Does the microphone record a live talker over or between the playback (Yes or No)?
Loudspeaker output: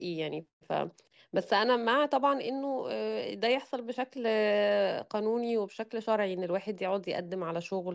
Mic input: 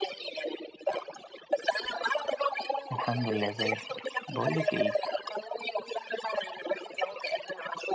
Yes